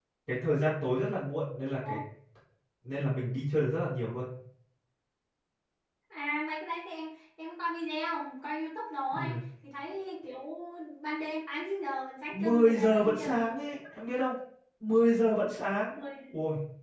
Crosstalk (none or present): present